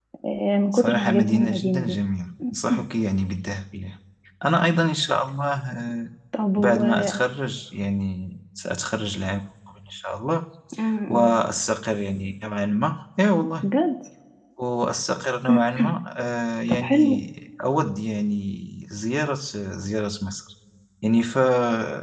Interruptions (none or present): present